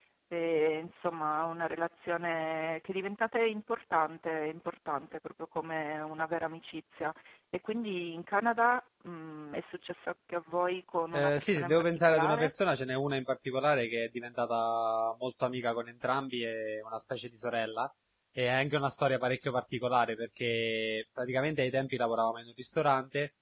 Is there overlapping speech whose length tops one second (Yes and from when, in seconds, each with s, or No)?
Yes, from 11.1 s